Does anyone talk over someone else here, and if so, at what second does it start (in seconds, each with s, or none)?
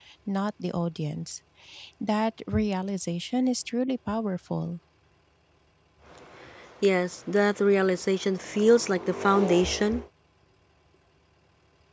none